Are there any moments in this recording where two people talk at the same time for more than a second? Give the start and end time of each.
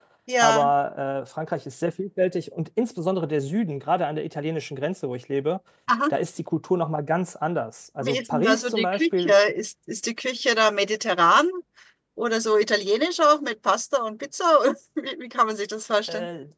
8.0-9.3

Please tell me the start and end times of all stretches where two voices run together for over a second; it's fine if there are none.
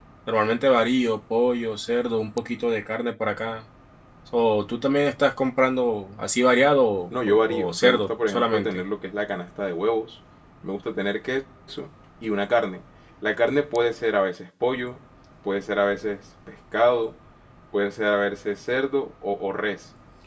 7.3-8.8

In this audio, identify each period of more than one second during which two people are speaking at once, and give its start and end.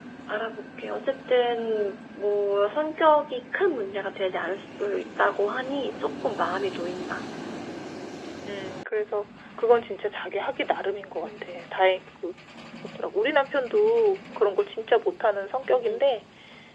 none

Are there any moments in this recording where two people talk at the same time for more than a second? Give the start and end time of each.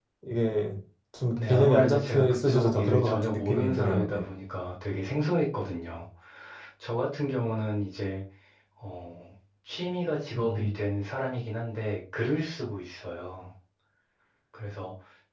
1.4-4.2

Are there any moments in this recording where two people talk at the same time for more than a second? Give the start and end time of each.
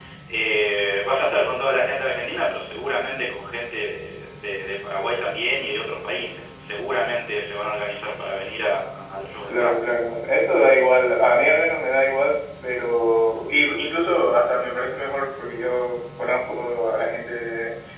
none

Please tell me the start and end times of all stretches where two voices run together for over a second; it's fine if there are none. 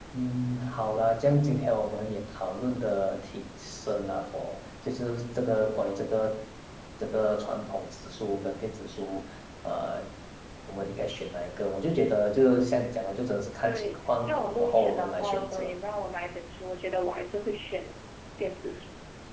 13.6-15.8

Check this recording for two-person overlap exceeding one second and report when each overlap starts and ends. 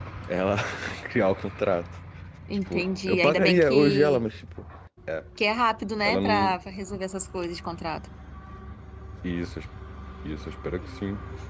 2.7-4.2

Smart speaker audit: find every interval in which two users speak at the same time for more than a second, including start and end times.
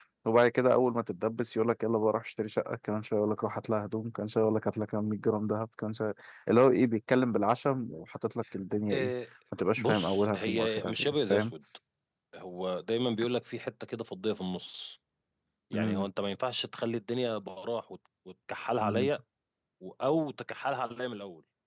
9.8-11.5

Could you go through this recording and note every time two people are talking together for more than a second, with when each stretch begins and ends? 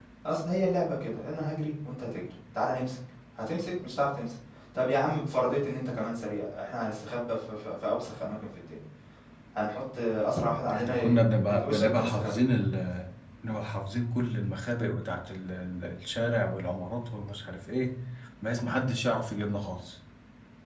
10.7-12.4

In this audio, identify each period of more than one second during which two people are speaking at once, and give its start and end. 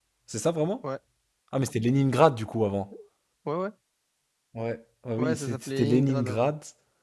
5.2-6.5

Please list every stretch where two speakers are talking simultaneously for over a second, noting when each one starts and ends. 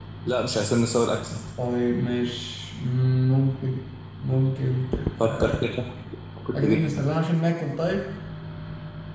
none

